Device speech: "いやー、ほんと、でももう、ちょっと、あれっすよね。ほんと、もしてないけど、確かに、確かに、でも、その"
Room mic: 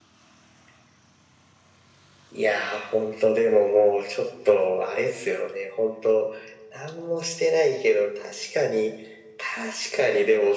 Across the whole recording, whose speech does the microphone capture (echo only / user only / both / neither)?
echo only